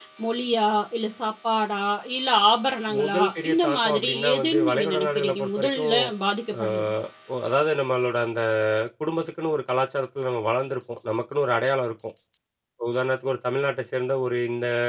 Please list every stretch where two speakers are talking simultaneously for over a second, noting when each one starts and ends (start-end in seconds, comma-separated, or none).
3.0-6.0